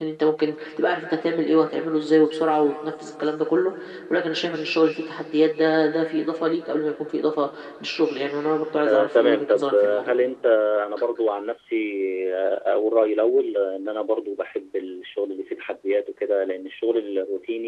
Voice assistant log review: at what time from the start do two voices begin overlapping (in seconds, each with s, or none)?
8.8 s